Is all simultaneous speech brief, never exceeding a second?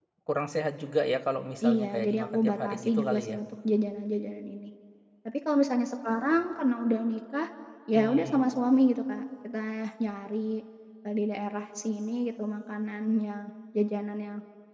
No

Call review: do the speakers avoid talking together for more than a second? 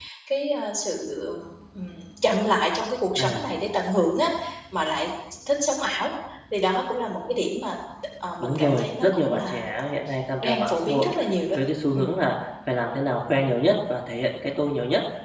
No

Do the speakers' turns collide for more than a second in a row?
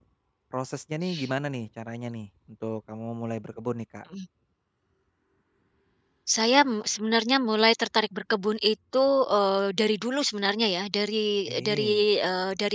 No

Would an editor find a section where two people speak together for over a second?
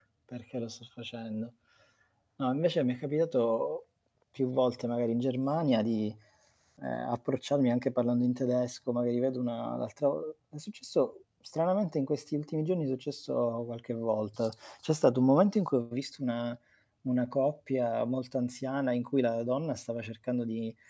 No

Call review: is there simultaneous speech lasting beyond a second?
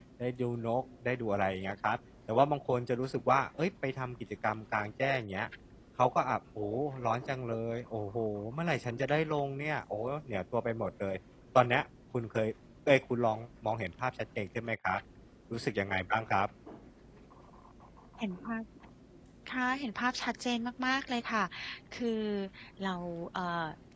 No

